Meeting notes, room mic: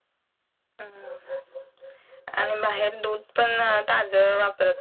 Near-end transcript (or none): none